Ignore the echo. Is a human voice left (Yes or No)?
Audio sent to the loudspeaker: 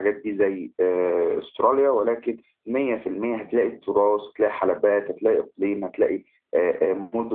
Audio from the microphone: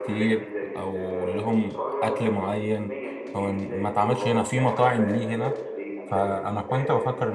Yes